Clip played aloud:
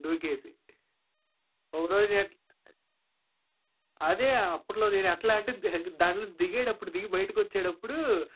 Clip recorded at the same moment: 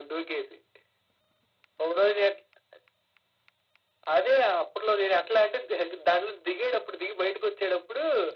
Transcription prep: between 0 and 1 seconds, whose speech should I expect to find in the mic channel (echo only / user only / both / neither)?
echo only